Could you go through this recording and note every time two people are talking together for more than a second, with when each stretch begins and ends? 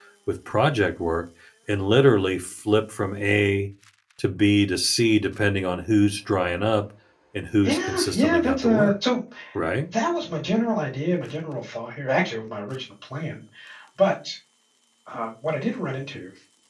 7.6-8.9

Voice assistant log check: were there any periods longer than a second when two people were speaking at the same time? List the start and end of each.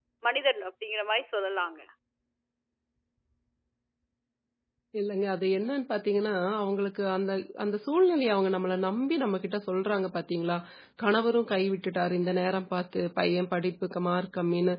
none

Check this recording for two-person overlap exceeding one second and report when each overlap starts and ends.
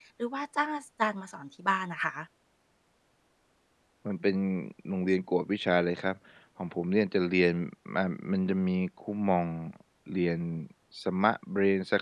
none

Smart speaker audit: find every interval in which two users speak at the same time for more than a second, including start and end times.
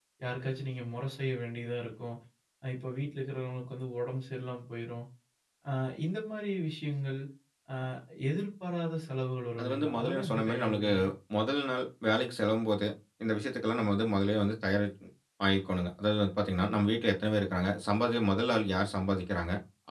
9.6-10.9

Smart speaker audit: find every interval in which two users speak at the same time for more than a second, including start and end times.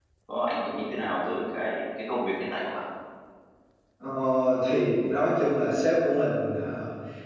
none

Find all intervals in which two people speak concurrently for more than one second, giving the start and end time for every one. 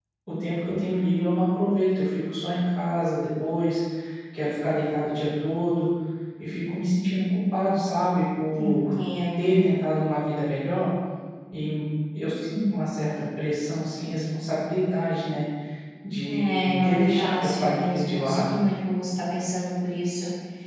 16.2-18.5

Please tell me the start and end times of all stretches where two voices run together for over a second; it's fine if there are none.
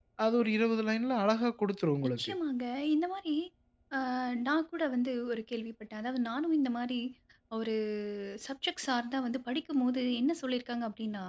none

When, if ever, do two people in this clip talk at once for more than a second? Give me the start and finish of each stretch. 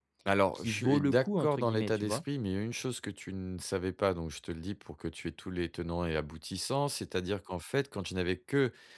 0.6-2.2

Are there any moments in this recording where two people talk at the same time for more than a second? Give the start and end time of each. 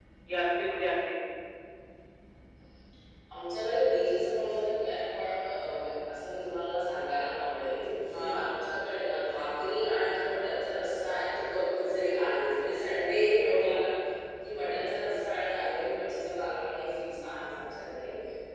none

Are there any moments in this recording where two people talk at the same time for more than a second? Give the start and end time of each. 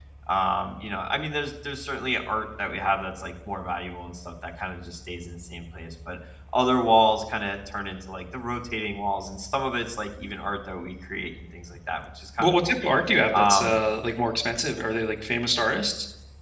none

